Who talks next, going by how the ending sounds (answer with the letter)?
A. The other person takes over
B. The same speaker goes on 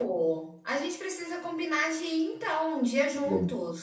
A